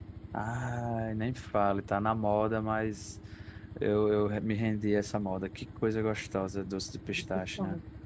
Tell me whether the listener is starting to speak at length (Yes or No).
Yes